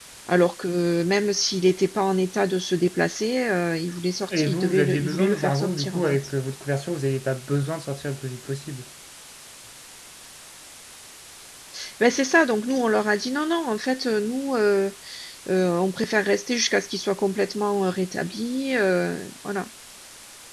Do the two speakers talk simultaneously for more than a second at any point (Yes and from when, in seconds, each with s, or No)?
Yes, from 4.3 s